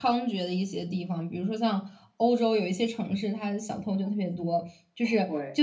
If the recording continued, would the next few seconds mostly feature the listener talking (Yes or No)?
No